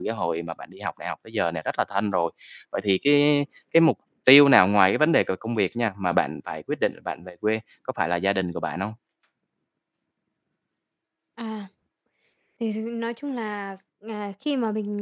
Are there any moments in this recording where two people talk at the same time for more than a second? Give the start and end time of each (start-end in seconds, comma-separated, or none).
none